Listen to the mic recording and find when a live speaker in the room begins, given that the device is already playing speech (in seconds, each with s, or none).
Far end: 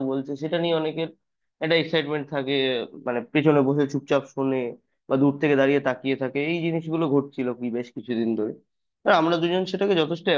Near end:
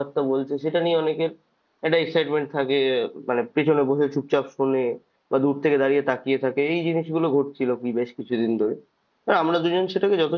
none